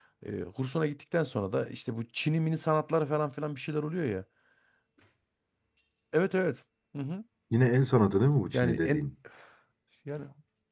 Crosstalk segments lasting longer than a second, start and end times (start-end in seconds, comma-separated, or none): none